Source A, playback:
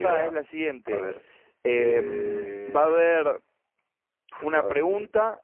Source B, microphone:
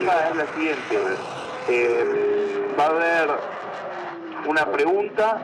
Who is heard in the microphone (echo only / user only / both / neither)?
echo only